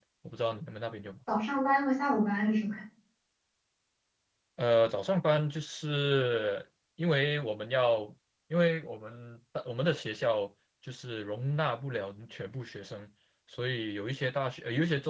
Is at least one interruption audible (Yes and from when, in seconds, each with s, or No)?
No